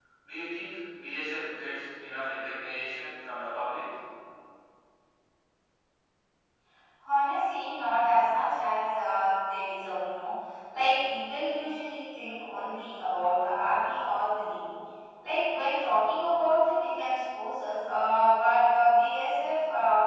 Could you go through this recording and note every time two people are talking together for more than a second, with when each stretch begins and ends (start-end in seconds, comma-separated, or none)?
none